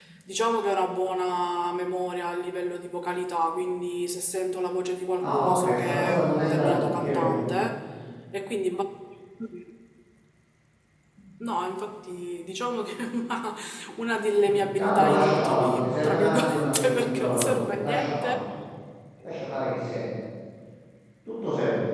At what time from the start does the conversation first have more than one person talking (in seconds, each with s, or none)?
5.2 s